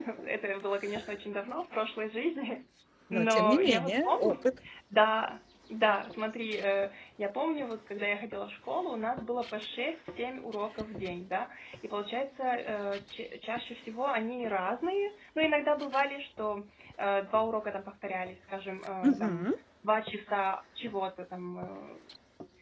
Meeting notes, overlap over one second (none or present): present